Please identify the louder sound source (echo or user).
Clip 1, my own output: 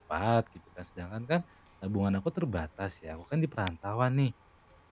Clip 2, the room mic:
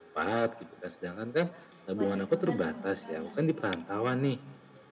echo